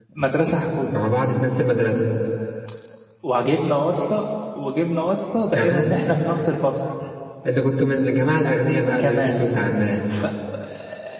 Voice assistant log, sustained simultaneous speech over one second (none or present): none